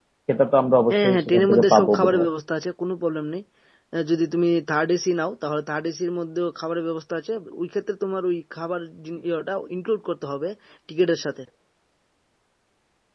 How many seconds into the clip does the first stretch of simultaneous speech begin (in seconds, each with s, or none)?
0.9 s